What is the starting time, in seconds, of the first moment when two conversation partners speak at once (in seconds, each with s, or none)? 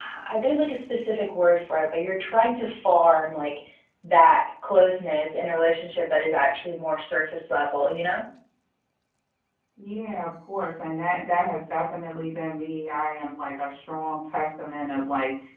none